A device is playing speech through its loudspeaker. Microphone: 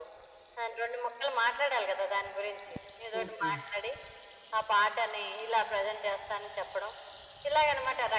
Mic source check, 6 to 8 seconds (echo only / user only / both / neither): echo only